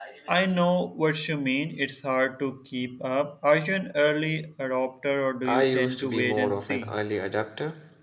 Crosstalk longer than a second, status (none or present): present